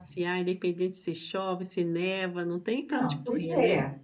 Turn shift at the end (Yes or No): Yes